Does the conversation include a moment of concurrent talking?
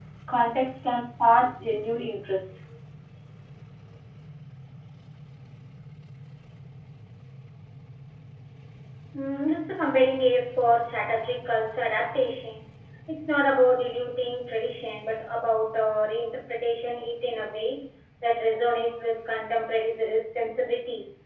No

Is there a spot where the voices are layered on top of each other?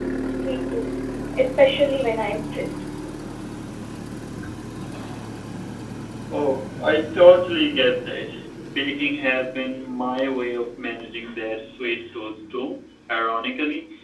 No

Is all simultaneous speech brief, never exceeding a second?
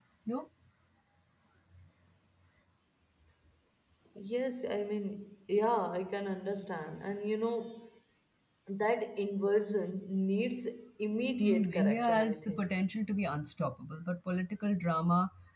No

